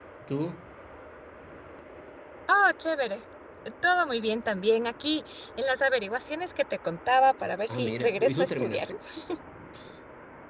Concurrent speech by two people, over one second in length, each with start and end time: 7.7-8.9

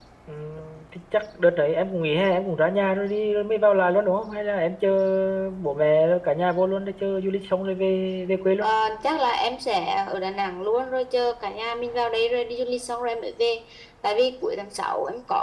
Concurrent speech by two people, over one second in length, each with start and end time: none

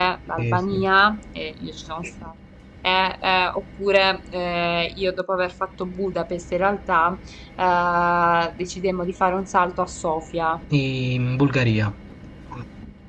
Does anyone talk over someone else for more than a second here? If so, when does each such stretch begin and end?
none

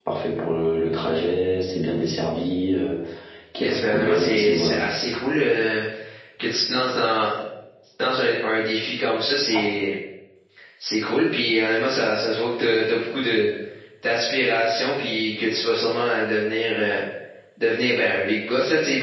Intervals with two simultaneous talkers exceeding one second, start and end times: 3.6-4.8

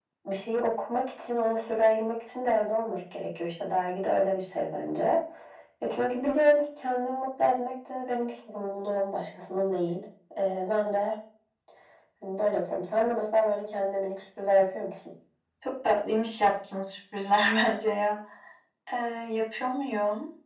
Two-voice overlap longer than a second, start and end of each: none

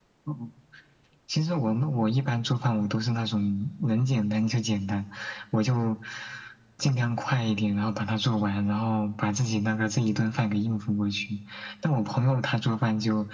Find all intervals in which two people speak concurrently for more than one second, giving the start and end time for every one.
none

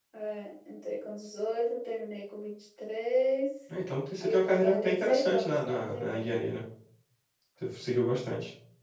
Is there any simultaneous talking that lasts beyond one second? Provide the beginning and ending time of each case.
4.2-6.4

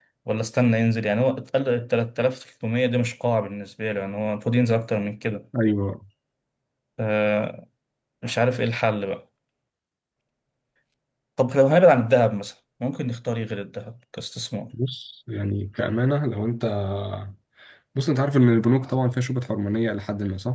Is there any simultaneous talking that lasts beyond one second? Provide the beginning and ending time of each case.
none

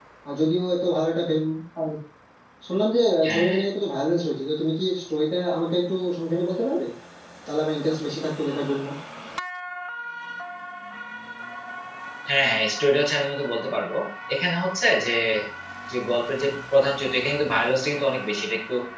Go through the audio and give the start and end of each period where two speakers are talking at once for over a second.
none

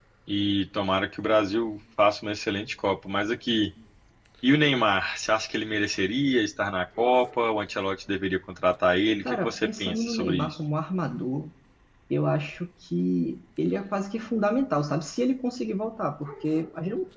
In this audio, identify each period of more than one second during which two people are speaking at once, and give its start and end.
9.2-10.6

